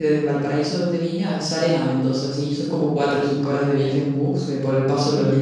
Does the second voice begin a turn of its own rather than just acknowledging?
No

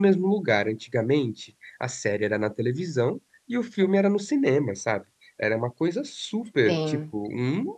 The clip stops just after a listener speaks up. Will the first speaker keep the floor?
Yes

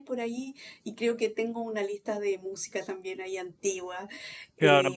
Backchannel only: No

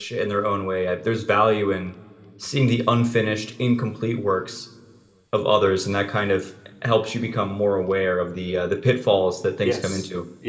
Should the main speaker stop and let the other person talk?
Yes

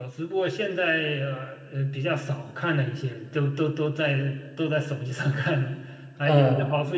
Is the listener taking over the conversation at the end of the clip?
No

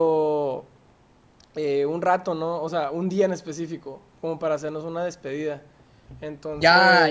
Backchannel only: No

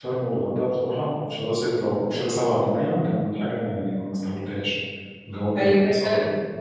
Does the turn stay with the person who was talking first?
No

